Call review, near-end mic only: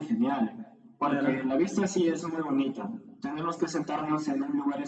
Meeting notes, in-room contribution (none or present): present